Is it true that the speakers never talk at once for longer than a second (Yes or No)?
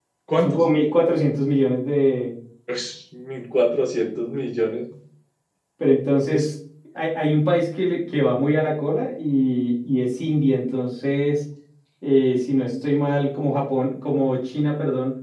Yes